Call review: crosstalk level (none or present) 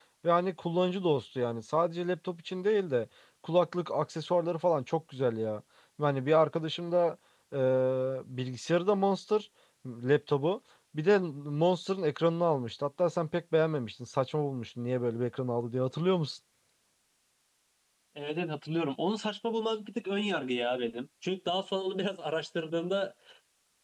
none